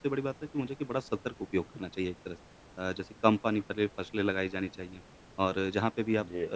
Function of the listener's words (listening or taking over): listening